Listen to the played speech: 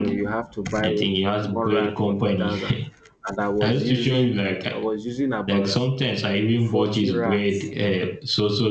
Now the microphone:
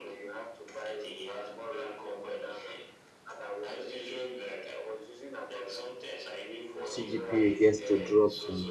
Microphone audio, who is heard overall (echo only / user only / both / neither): both